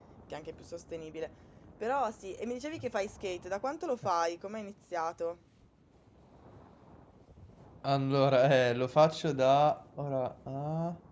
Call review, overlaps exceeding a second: none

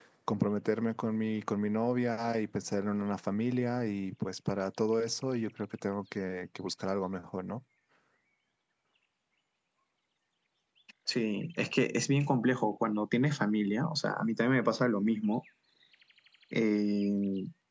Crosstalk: none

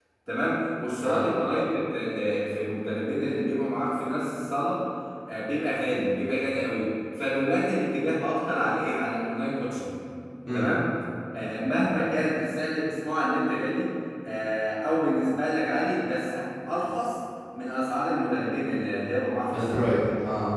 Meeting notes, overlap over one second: none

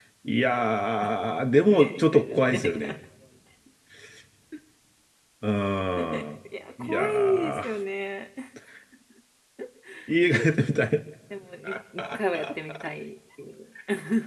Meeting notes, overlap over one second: present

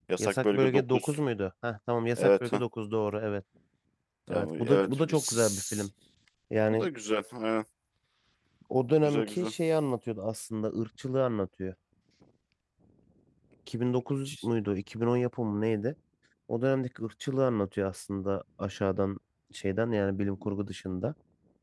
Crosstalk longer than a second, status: present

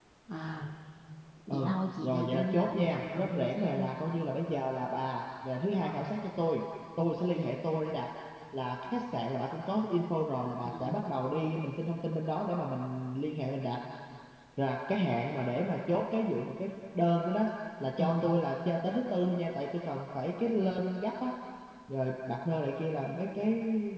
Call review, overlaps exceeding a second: present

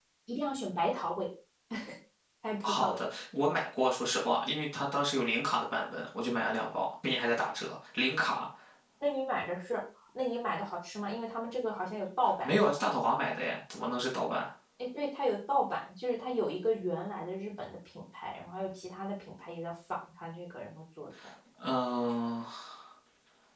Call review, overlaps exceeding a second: none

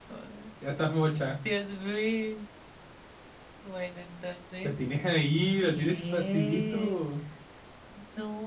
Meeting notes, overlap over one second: present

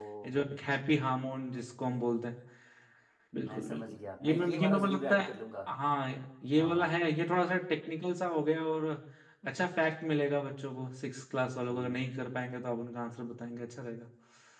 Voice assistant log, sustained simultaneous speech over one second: present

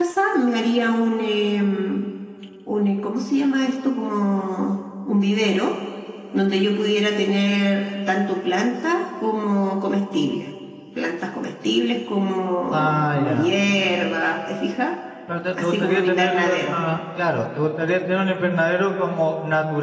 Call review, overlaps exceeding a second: present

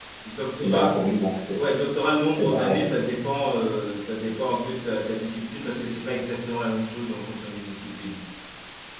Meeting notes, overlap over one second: none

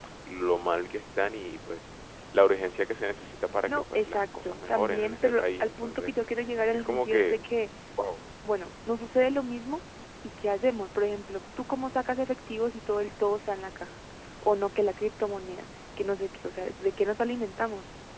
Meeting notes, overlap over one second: present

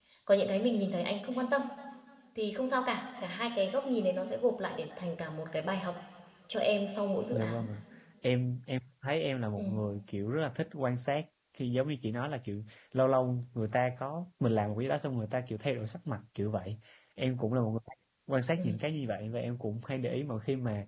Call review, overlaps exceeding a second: none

